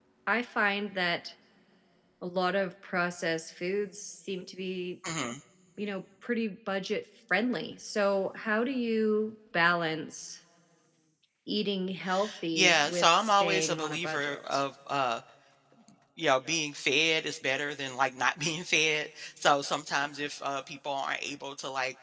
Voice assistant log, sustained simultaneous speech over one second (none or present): present